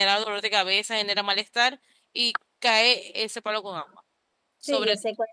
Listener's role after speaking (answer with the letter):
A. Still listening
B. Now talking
B